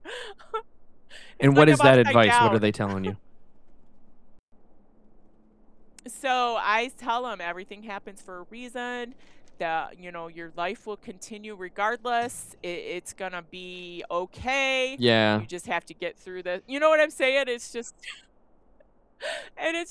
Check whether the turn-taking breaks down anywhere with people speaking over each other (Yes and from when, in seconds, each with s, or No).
Yes, from 1.4 s